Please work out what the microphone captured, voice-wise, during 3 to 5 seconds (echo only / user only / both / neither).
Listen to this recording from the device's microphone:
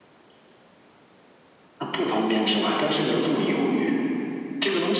echo only